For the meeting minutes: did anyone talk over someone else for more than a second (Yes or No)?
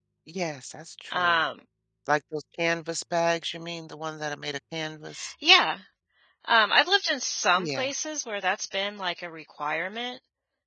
No